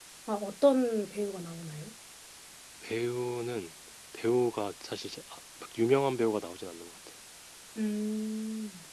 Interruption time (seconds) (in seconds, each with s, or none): none